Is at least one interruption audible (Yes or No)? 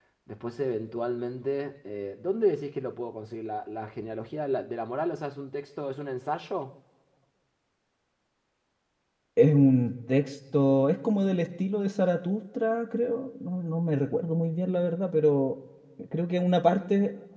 No